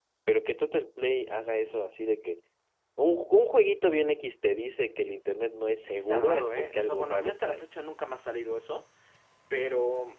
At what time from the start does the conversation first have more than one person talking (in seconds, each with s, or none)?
5.9 s